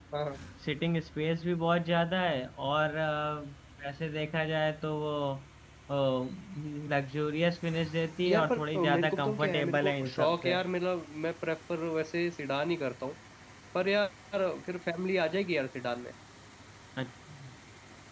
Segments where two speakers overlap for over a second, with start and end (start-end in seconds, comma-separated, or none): 8.3-10.6